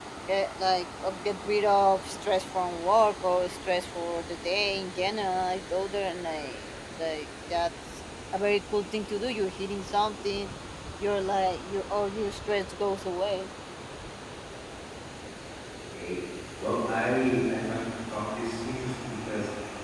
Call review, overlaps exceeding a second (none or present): none